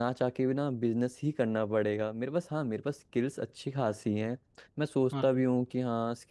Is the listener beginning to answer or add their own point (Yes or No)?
No